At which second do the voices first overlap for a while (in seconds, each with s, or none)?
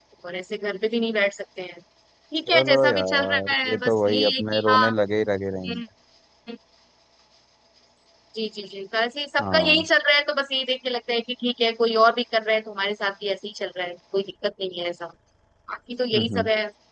2.5 s